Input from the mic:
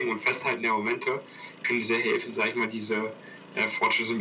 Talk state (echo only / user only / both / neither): echo only